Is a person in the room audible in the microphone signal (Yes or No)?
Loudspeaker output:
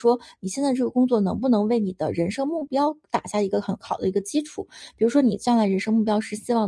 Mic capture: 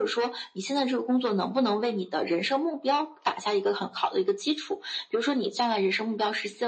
No